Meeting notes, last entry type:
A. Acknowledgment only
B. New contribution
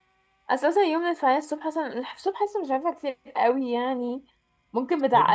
A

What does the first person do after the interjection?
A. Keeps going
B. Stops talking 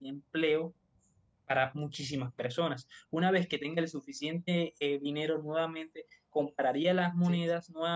A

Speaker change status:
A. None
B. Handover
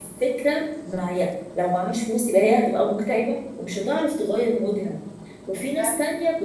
A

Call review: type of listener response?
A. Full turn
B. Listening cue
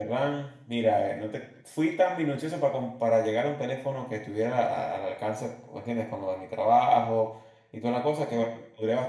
B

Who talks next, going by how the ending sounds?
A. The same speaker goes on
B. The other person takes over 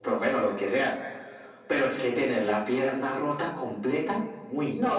B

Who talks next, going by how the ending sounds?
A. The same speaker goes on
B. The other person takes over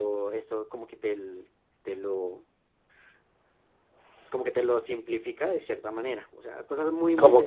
B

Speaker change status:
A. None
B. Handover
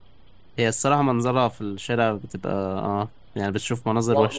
B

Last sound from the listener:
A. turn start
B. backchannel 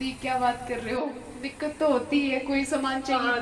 A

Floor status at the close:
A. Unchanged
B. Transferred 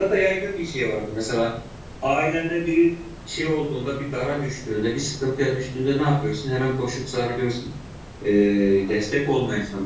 A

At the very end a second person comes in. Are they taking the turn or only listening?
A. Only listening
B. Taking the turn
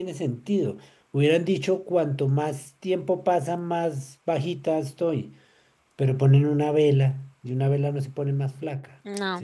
B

